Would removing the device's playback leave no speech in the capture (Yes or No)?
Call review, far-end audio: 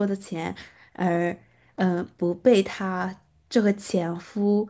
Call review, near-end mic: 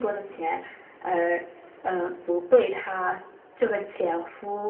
Yes